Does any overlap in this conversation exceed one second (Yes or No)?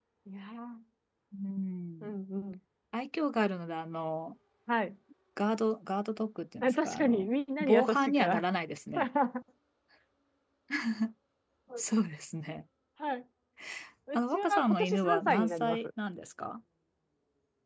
Yes